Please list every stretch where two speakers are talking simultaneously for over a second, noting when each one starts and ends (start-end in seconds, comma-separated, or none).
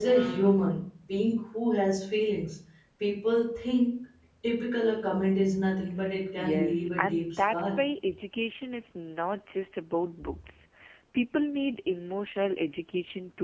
6.3-7.7